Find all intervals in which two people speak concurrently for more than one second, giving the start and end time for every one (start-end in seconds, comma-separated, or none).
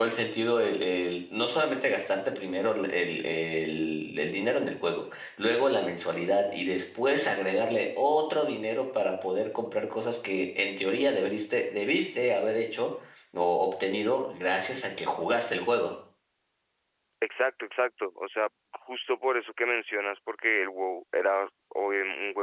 none